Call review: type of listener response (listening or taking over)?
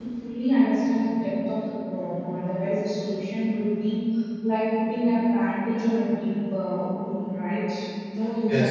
taking over